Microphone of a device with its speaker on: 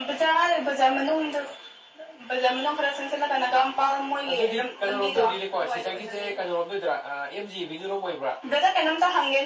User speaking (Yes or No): No